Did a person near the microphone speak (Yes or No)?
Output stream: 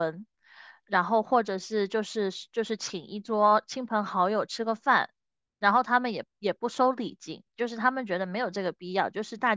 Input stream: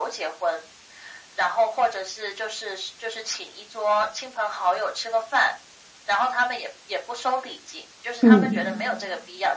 Yes